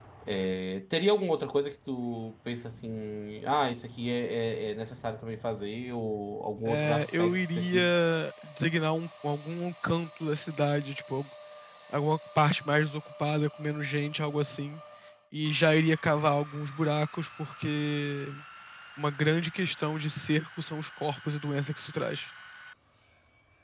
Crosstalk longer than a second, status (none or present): present